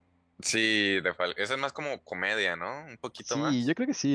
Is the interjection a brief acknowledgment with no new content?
No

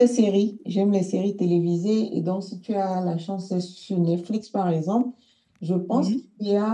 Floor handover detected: No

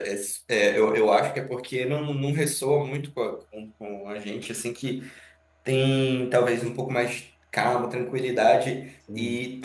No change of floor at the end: Yes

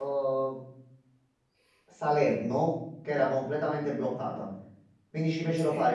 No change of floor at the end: Yes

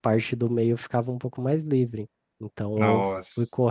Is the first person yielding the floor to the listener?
No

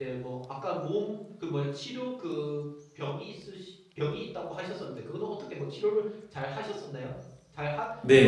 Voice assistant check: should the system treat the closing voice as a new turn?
Yes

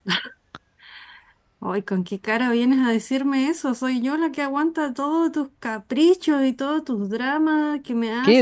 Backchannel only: No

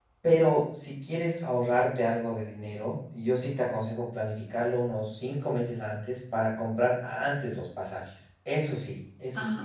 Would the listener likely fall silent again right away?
No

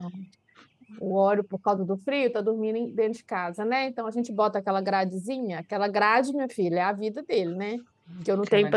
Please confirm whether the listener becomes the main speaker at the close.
No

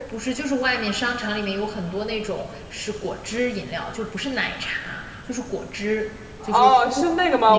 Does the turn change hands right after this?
Yes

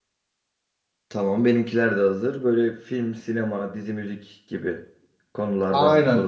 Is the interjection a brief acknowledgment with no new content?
No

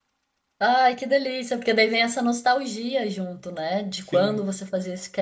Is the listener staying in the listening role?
Yes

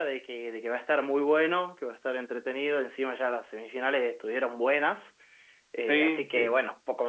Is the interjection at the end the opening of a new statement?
No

